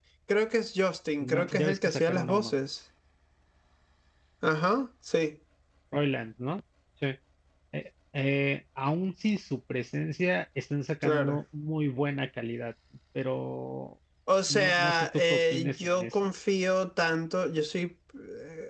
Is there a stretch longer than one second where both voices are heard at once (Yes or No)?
Yes